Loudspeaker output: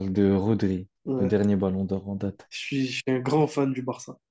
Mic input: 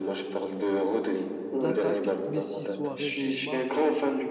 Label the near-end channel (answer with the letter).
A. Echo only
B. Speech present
B